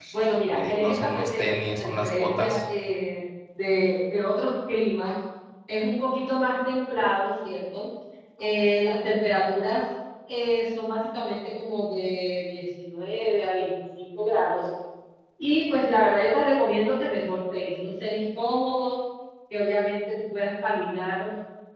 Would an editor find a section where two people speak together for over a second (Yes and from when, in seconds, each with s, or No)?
Yes, from 0.5 s